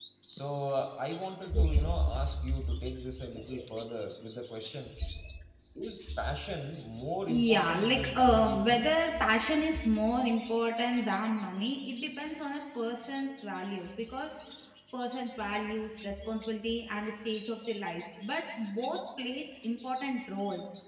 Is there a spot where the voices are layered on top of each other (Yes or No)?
Yes